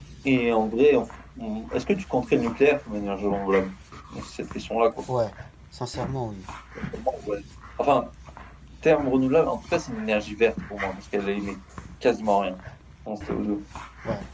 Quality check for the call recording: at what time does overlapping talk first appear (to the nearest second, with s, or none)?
none